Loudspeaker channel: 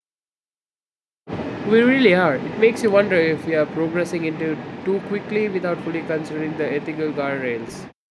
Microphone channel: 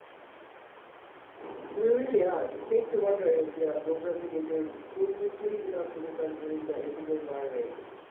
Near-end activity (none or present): none